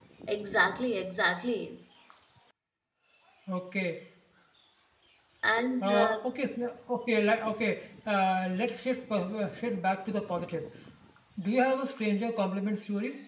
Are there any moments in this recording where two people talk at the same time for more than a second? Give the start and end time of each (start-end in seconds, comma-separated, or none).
none